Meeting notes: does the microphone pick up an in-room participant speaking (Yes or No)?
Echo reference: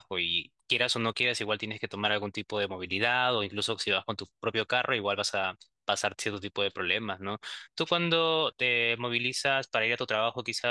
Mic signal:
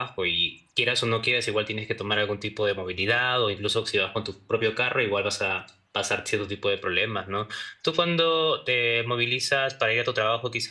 No